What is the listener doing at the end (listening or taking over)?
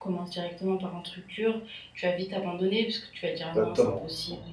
taking over